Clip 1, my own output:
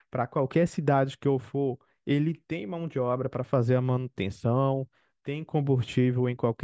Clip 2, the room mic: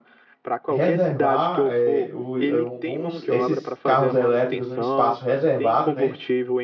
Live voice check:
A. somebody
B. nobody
A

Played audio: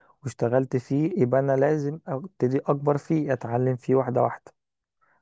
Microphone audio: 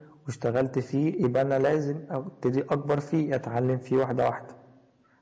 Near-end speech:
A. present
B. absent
B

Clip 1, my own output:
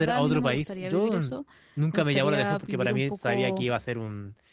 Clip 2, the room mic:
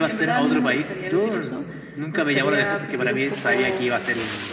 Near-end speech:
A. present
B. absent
B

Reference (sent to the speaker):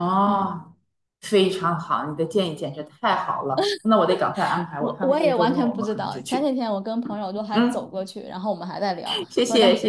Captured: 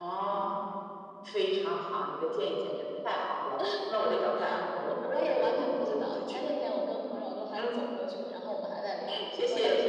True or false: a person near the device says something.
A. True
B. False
B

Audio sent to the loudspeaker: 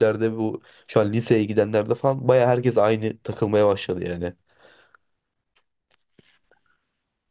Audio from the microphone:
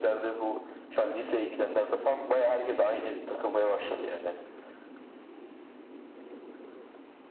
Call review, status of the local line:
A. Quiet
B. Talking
A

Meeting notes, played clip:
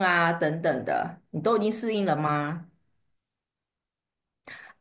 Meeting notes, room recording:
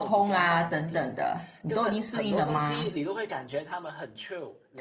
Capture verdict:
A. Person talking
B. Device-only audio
A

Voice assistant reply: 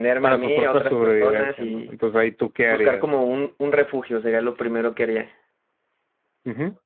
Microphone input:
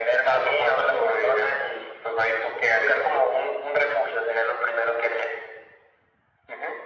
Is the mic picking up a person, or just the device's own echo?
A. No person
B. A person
A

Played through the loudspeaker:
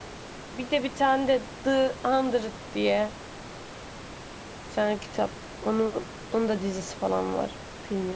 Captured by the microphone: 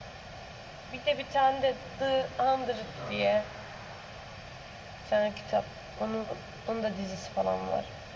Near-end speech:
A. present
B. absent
A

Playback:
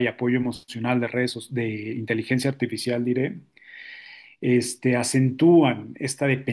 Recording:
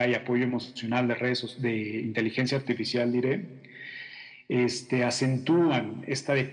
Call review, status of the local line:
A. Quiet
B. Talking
A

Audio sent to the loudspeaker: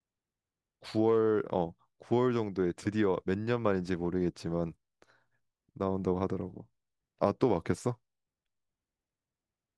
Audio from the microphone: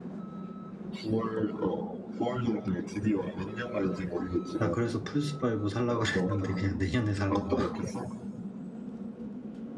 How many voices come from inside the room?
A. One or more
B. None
A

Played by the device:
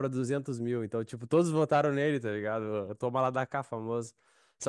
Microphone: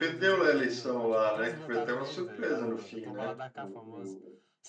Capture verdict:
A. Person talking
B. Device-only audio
A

